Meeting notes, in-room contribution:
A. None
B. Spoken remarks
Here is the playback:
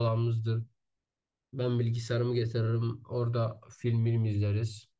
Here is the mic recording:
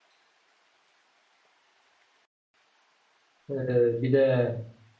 B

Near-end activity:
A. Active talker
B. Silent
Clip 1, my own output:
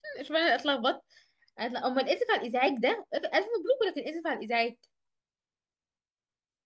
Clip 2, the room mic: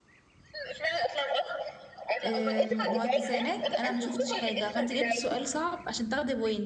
A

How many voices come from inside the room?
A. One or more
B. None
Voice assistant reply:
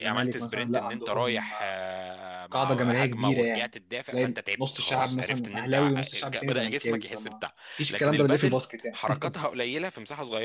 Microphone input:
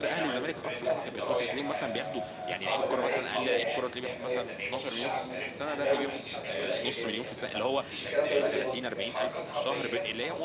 A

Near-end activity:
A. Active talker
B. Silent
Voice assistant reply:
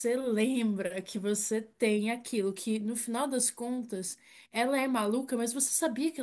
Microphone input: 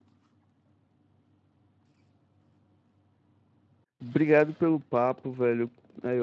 A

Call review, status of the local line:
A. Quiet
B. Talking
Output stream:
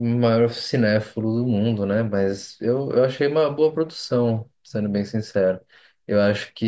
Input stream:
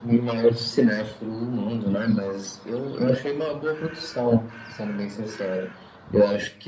A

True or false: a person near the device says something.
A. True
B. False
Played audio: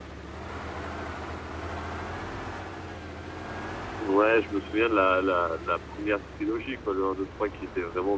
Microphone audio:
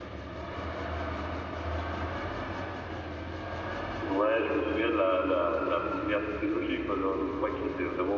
B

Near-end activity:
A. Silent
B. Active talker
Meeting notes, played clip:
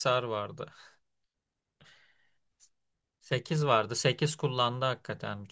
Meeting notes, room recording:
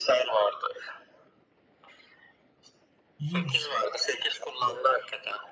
B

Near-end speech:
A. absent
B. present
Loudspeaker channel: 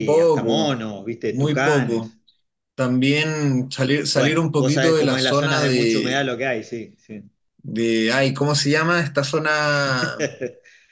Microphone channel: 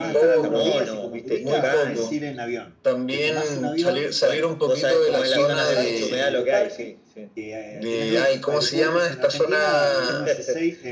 B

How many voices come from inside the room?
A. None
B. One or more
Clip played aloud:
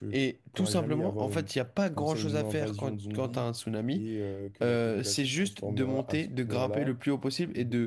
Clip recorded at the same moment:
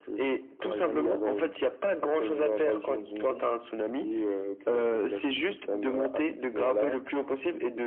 A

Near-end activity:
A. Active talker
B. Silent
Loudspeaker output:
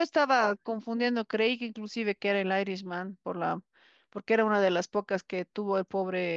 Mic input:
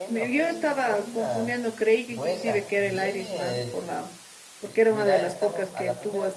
A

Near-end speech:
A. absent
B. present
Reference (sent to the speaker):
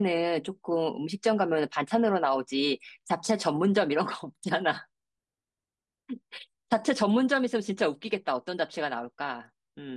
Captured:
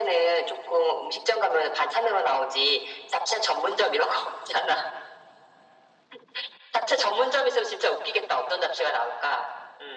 A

